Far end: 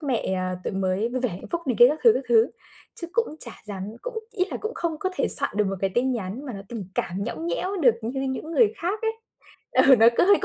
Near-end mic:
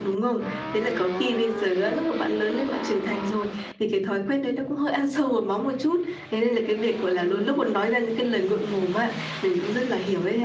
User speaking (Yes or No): Yes